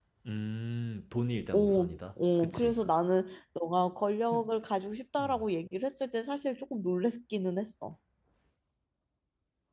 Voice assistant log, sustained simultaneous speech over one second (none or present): present